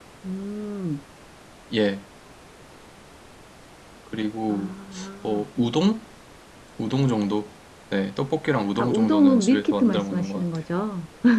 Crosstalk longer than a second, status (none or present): present